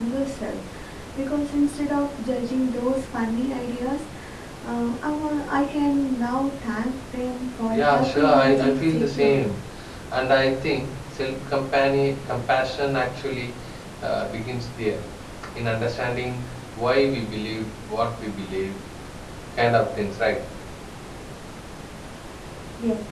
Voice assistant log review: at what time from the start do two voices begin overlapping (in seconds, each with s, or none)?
7.7 s